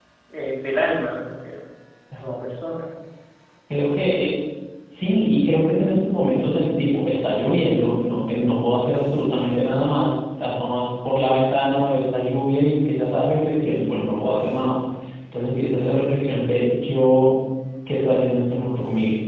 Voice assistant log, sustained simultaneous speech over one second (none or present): none